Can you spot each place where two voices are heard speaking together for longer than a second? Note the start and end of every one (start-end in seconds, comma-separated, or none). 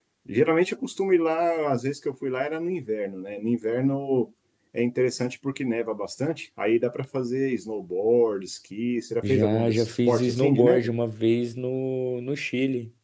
9.3-10.9